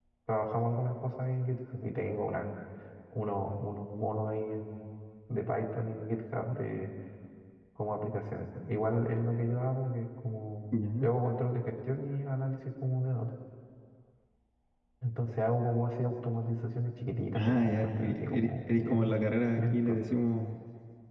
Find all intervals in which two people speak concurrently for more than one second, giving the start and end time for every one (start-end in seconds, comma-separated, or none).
17.3-19.1